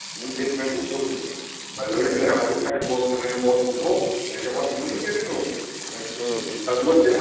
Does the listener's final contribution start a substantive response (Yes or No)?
Yes